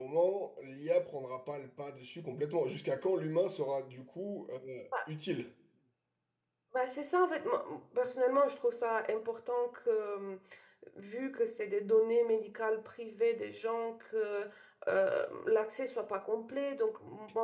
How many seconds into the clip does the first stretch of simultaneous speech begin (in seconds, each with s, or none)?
none